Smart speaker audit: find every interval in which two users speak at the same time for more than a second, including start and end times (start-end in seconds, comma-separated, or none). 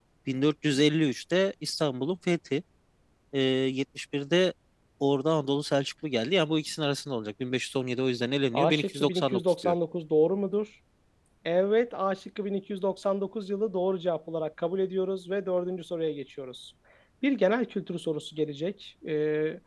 8.5-9.8